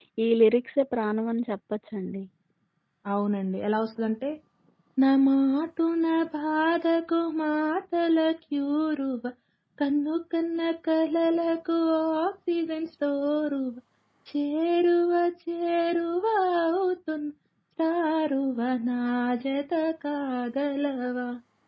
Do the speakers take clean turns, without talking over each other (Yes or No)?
Yes